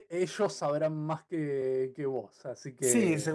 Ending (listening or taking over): taking over